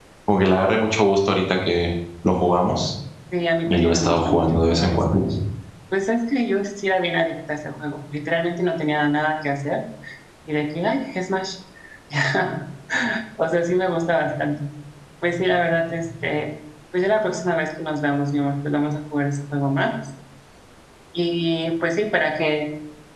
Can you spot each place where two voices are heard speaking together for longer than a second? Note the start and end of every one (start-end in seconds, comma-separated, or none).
3.7-5.2